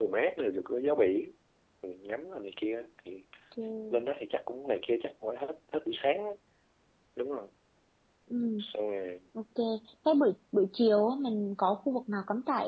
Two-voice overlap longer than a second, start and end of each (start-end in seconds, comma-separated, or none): none